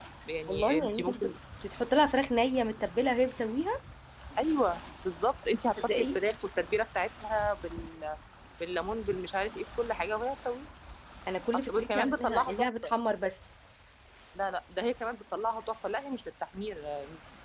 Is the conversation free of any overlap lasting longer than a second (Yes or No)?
No